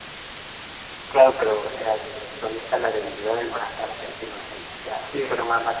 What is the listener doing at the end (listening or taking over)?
listening